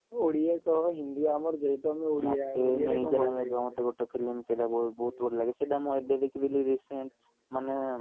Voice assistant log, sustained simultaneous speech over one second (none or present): present